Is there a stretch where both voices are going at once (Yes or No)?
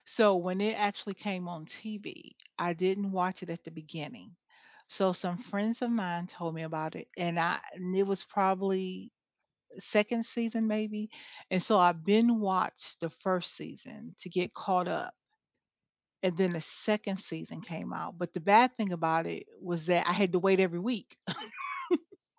No